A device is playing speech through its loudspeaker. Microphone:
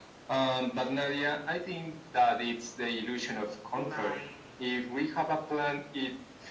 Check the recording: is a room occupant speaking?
Yes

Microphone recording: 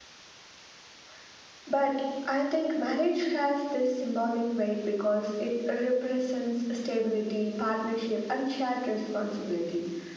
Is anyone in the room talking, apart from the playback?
Yes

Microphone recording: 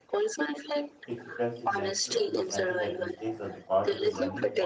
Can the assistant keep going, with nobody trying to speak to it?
No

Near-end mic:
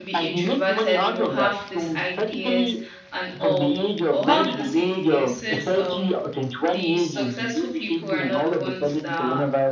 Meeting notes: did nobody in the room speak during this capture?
No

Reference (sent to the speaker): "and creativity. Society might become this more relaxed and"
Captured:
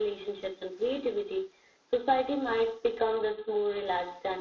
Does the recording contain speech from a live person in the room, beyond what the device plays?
No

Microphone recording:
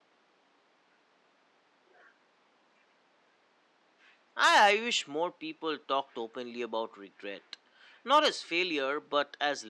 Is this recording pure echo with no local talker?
No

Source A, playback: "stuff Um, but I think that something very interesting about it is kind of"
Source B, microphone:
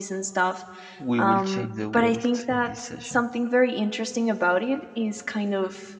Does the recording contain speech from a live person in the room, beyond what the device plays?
Yes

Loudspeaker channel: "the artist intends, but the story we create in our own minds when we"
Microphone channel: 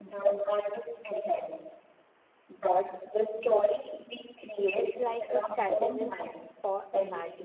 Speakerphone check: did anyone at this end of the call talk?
Yes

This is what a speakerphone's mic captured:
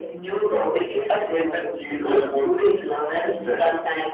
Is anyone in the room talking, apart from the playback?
No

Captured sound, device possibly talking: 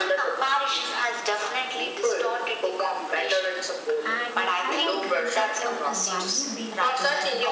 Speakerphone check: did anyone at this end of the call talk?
Yes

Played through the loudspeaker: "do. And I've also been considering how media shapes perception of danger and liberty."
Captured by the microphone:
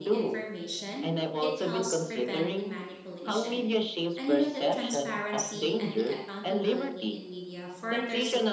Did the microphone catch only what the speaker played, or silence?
No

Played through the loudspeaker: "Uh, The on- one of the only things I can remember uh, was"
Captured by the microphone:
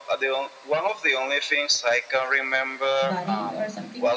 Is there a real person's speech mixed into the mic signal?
Yes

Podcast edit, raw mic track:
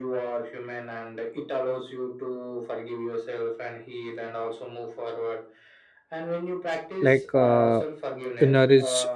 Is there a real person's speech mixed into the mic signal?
Yes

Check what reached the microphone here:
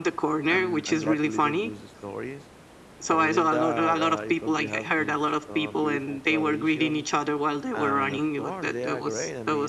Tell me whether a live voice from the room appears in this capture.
Yes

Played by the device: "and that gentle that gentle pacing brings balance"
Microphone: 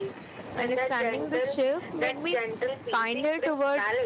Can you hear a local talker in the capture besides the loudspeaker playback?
Yes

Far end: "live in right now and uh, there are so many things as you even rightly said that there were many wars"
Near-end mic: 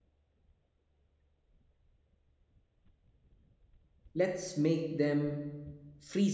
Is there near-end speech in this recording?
Yes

